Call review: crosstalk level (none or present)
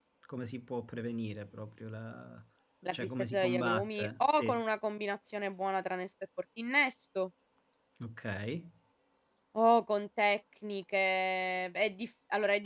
present